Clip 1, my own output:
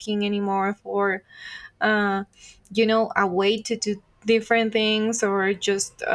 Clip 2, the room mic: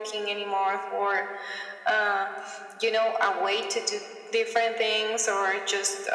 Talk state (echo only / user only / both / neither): echo only